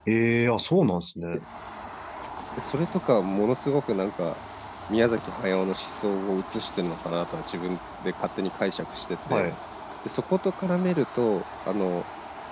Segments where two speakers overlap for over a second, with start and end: none

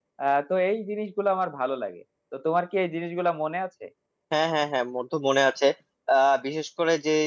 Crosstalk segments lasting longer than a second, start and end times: none

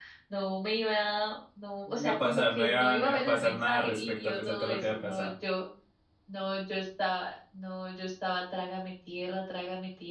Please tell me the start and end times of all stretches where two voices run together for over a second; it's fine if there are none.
1.9-5.3

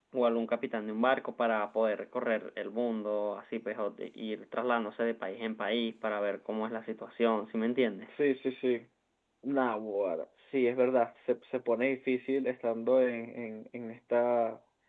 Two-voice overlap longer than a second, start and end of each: none

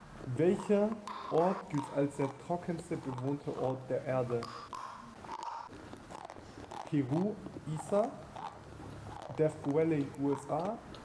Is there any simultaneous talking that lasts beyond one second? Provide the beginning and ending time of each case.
none

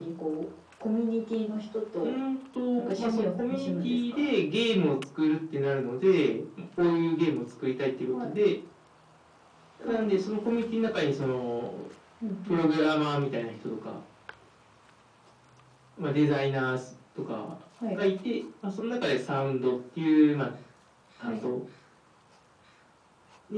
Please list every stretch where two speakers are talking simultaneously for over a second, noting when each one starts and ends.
2.8-4.3

